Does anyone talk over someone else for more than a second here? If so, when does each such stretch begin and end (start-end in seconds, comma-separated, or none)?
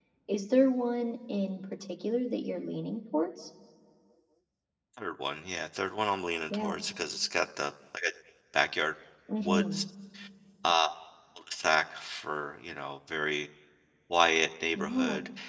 none